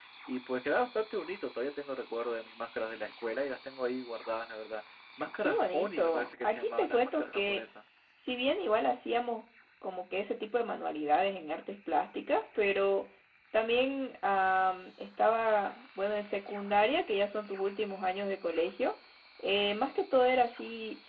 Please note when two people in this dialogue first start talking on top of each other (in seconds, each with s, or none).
5.4 s